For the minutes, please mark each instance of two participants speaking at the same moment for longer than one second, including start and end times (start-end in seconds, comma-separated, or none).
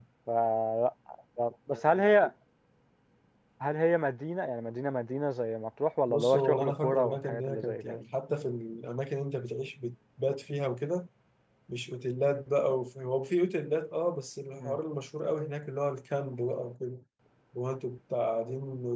6.1-8.0